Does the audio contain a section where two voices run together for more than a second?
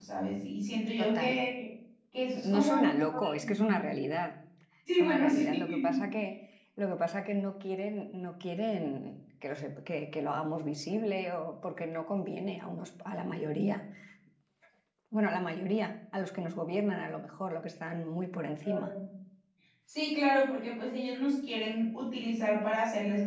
Yes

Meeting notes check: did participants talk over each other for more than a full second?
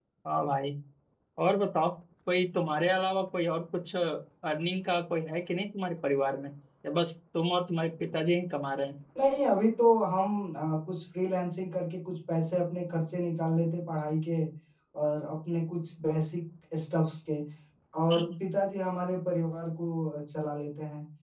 No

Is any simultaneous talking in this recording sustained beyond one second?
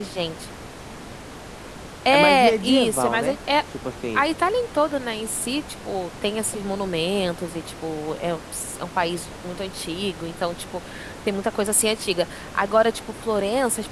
Yes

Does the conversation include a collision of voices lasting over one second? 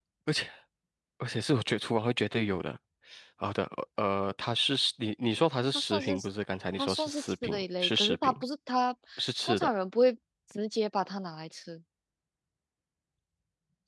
Yes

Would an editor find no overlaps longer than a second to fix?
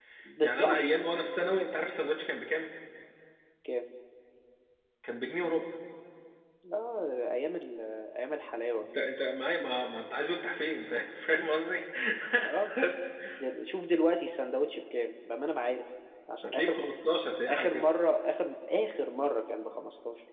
Yes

